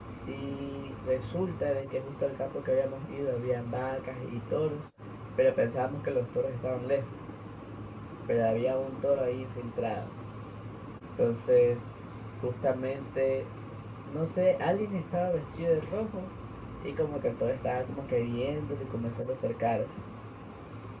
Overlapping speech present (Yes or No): No